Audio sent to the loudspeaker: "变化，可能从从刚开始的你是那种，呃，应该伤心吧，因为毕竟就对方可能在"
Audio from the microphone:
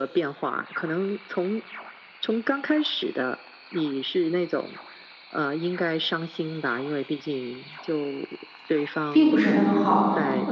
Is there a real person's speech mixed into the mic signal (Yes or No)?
Yes